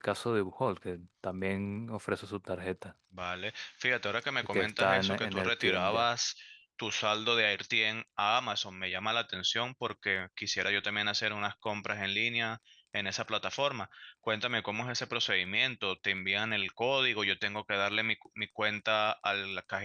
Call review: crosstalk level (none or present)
present